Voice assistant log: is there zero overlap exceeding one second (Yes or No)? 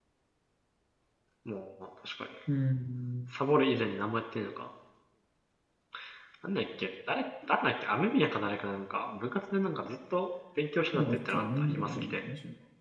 No